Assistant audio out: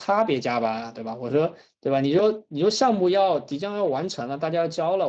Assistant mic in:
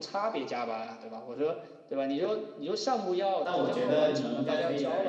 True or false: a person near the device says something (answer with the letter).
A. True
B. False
A